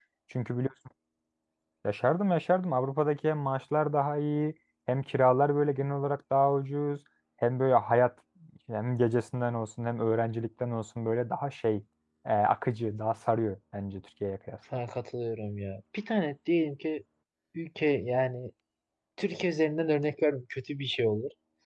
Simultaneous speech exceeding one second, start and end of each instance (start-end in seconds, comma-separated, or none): none